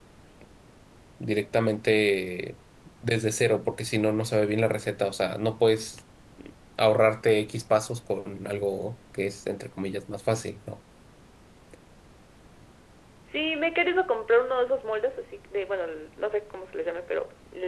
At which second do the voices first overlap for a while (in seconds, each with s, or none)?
none